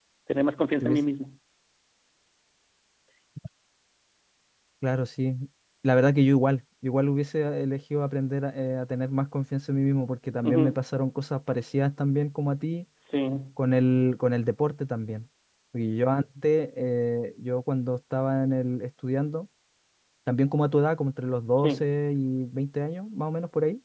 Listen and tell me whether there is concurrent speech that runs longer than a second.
No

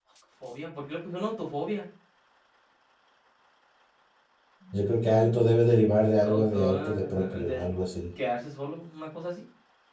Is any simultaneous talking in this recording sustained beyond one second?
Yes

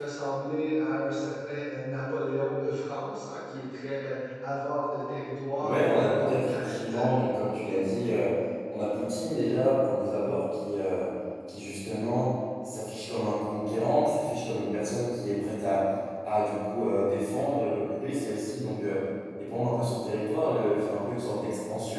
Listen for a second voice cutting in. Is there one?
Yes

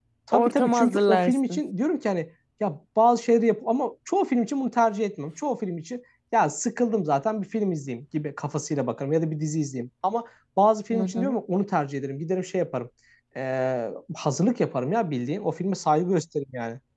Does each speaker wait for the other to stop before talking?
No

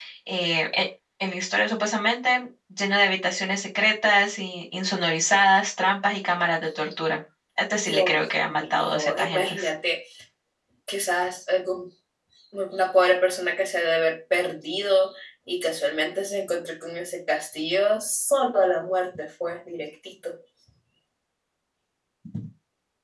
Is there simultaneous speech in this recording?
Yes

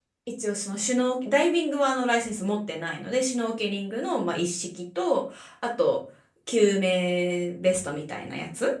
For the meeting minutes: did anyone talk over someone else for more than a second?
No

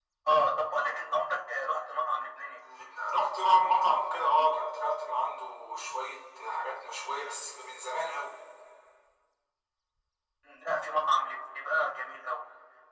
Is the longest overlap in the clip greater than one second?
No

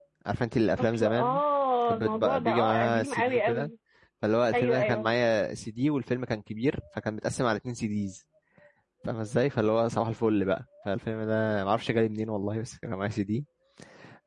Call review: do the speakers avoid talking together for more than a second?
No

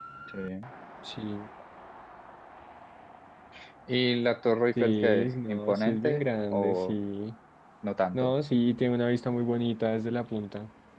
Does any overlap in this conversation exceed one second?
Yes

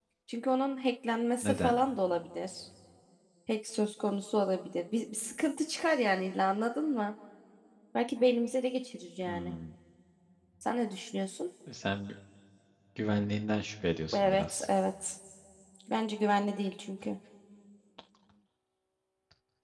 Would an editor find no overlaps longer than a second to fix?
Yes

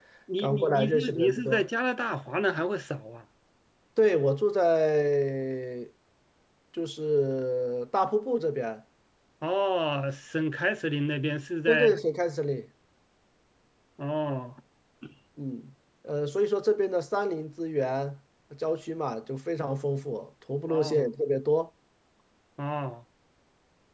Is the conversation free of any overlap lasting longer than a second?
No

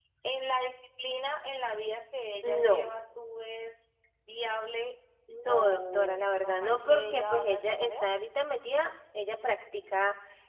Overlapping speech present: Yes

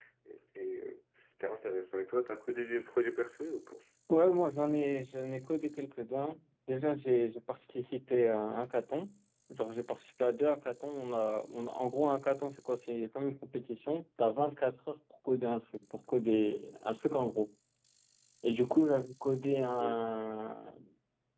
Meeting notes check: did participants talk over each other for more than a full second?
No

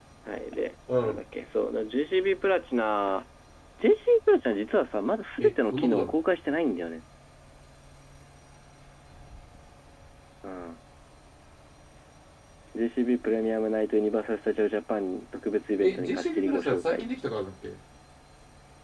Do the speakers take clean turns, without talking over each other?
No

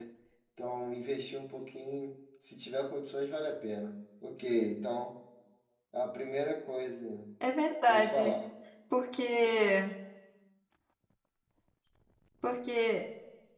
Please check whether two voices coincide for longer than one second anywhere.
No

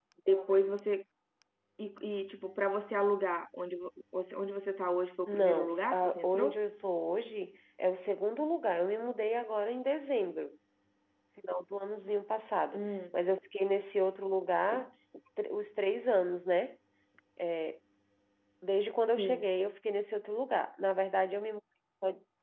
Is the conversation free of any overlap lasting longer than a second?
No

